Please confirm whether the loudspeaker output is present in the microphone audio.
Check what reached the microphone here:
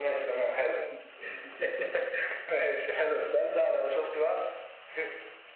Yes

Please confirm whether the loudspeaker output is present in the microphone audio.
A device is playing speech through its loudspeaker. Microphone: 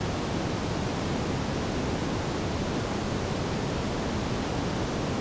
No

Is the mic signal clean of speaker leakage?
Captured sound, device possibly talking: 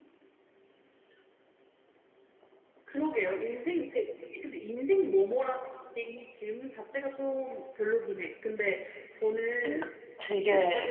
No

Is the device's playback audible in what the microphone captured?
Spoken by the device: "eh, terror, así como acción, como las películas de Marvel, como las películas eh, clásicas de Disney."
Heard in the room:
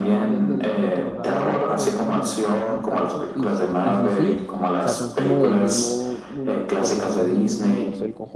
Yes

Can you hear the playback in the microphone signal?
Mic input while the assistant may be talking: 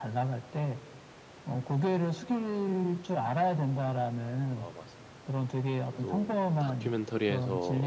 Yes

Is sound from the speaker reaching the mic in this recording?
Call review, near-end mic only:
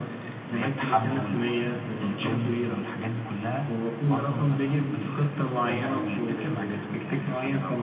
Yes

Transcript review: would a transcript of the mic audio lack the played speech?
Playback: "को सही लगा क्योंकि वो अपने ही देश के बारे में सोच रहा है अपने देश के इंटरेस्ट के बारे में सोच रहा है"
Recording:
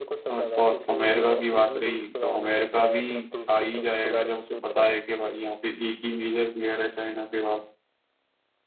No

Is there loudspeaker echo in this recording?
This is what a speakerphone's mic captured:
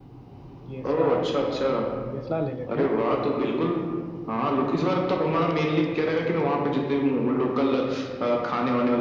Yes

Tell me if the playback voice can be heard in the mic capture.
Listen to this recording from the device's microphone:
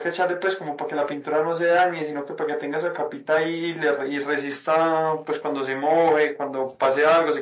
Yes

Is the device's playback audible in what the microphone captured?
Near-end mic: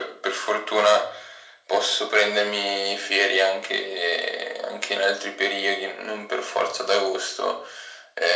Yes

